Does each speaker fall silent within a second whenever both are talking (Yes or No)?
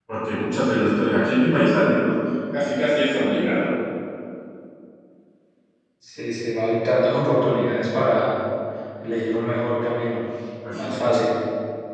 Yes